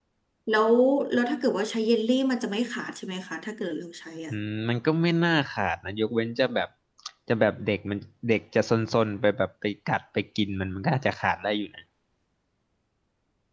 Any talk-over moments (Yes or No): No